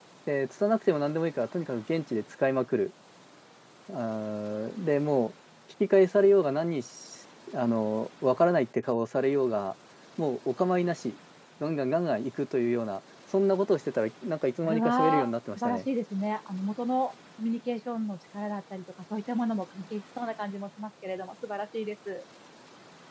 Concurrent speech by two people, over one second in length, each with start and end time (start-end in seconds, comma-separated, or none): 14.6-15.8